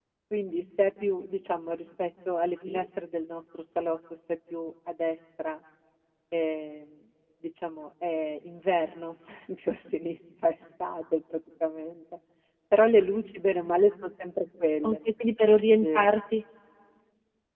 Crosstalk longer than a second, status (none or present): none